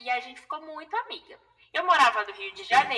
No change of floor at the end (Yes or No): Yes